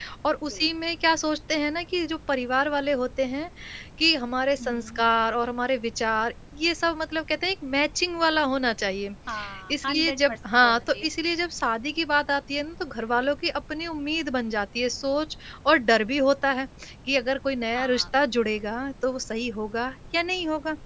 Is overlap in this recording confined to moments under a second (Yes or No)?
No